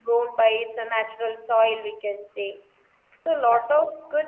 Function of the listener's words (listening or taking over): listening